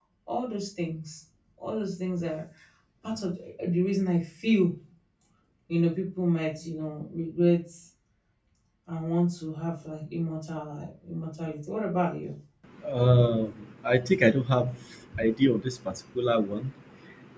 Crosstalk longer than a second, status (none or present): none